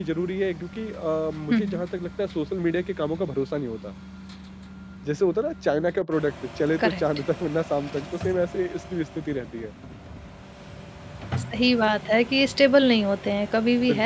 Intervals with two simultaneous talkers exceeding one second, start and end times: none

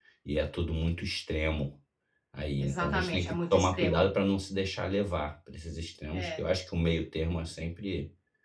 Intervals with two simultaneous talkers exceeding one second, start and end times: 2.6-4.1

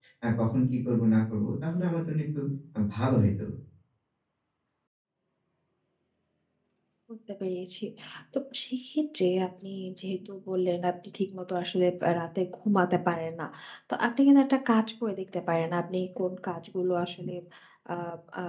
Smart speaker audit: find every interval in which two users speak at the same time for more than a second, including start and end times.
none

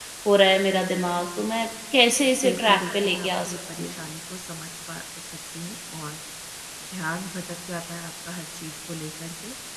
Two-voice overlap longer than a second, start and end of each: 2.4-3.9

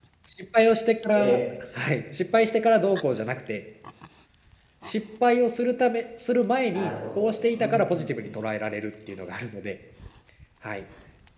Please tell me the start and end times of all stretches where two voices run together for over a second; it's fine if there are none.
6.7-8.1

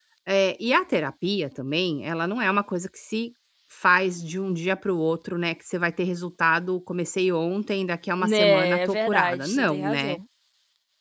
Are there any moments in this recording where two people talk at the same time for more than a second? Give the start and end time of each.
8.2-10.2

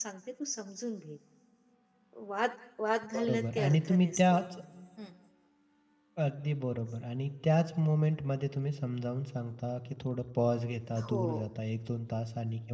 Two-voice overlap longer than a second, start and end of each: 3.1-4.3

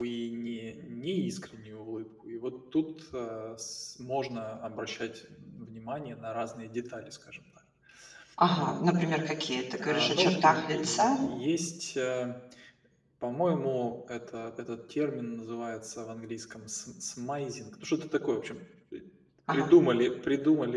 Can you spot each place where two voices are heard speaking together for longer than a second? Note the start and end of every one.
9.8-11.2

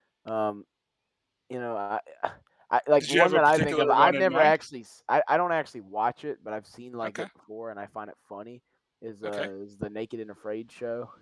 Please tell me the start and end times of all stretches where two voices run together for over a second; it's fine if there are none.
3.0-4.6

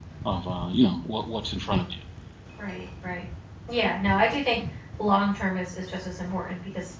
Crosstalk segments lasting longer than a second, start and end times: none

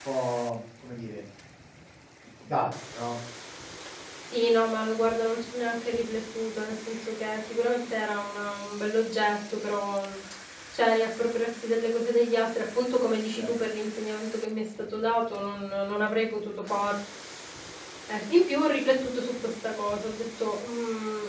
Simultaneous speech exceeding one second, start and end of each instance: none

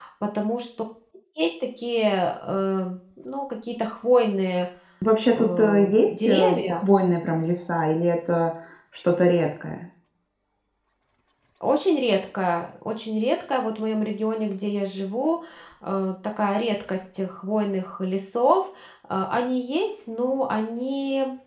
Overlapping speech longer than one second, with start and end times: 5.3-6.8

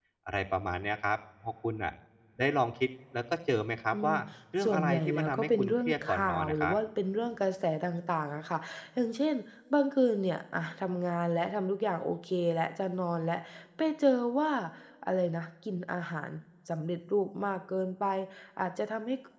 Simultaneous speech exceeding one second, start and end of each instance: 4.6-6.8

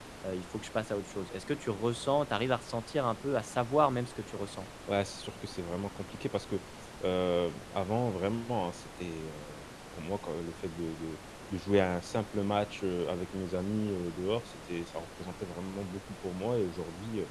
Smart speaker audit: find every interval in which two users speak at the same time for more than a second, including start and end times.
none

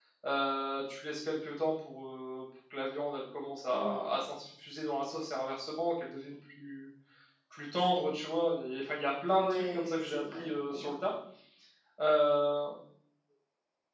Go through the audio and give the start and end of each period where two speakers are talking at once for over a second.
9.4-10.9

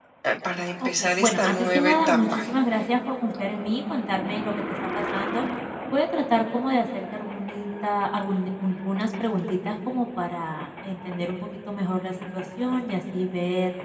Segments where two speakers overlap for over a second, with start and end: 0.8-2.4

